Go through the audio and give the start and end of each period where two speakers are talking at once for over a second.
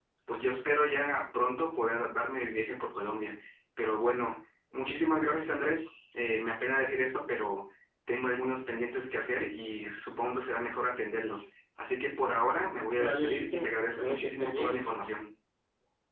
12.9-14.8

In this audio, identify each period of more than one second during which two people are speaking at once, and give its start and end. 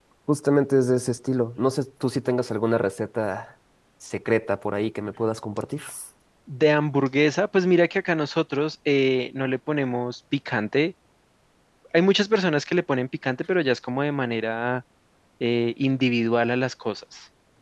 none

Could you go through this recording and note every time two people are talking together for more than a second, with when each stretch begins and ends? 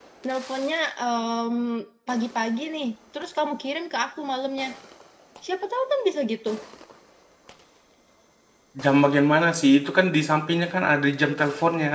none

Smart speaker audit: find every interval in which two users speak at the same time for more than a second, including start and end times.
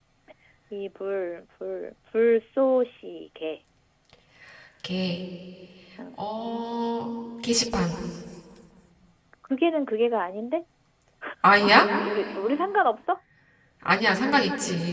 none

